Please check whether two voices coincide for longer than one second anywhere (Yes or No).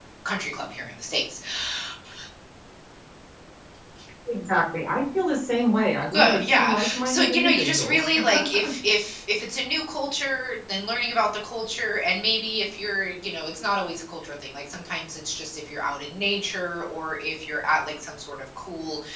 Yes